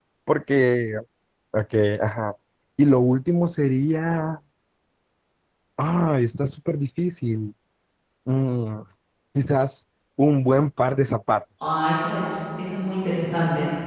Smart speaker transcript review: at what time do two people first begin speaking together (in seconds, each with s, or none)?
none